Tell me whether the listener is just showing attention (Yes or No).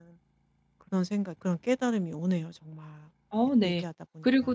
No